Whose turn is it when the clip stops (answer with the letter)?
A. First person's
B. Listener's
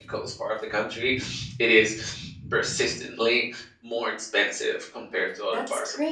B